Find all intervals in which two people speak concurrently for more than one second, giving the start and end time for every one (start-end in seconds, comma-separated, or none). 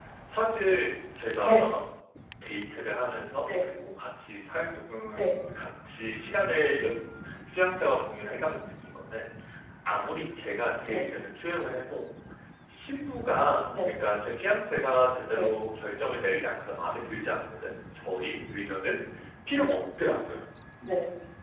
none